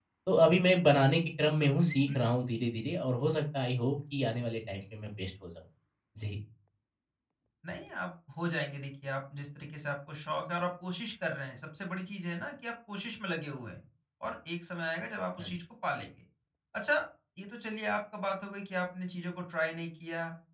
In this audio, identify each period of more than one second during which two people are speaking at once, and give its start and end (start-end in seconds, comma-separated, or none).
none